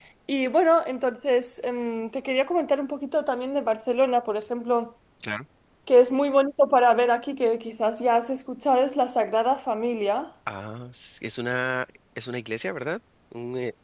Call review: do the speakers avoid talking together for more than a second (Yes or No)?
Yes